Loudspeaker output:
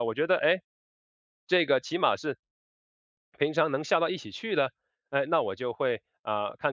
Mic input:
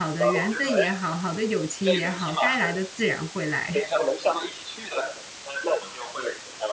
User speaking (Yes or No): Yes